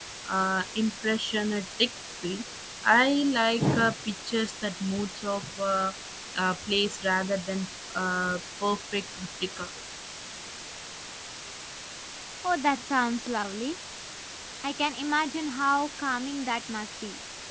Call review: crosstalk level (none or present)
none